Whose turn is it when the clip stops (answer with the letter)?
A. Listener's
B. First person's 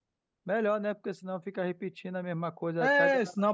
A